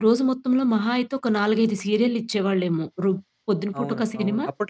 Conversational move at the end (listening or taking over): taking over